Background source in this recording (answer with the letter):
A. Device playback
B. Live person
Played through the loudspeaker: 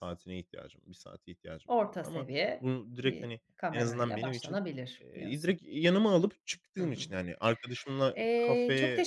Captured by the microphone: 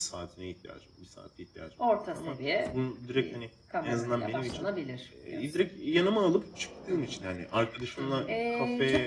B